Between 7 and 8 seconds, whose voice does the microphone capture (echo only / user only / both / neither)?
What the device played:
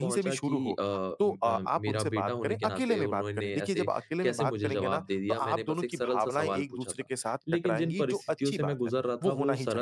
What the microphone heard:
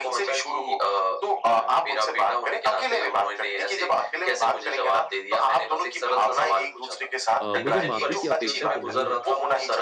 both